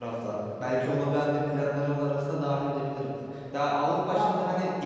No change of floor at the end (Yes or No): Yes